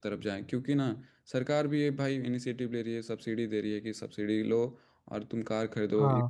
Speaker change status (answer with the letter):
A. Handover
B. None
B